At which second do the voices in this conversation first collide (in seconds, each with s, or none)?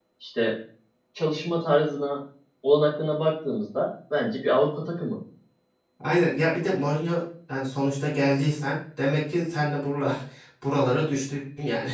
none